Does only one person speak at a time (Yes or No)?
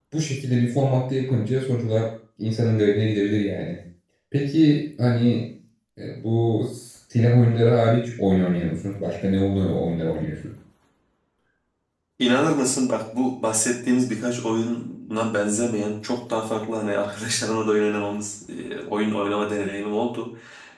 Yes